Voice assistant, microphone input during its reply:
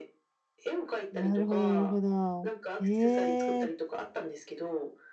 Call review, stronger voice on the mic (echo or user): user